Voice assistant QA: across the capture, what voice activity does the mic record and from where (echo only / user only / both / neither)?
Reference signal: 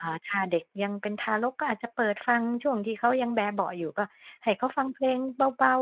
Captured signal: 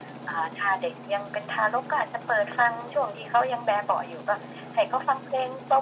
echo only